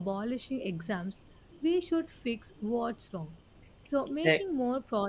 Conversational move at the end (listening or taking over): listening